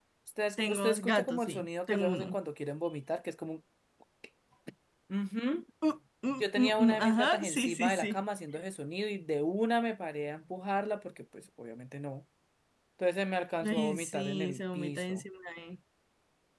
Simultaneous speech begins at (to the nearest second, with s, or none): 1 s